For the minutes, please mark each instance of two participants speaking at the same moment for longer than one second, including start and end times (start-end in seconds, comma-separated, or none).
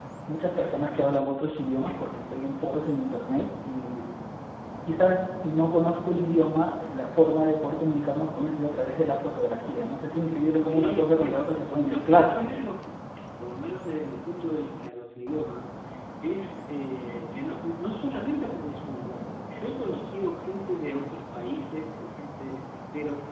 10.7-12.7